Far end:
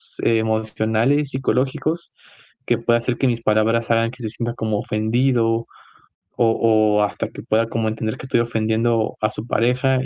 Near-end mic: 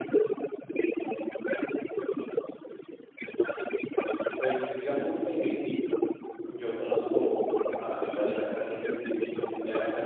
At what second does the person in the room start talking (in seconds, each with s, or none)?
4.4 s